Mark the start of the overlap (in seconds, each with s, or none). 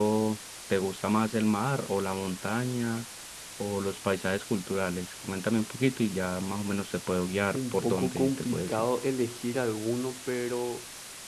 7.5 s